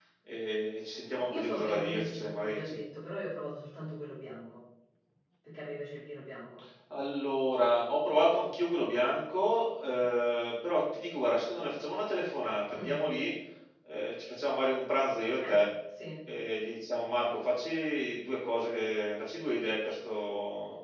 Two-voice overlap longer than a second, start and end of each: 1.3-2.6

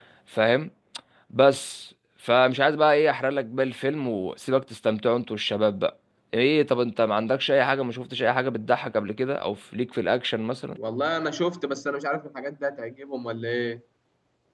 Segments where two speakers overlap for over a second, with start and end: none

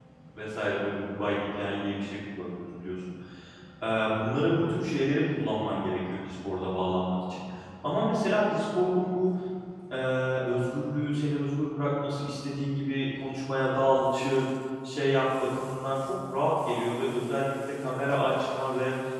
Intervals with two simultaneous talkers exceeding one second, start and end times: none

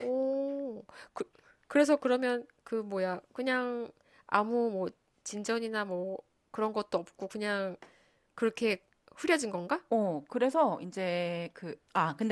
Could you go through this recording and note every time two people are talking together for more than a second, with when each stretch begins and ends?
none

